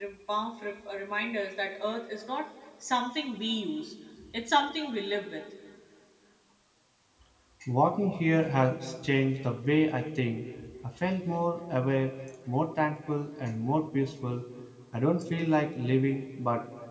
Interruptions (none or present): none